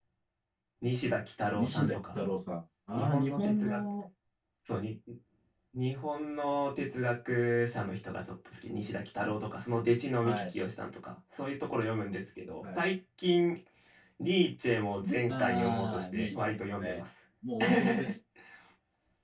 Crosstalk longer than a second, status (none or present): present